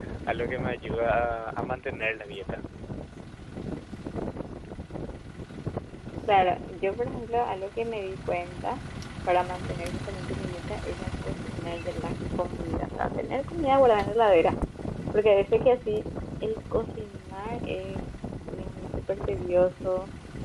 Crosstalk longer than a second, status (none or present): none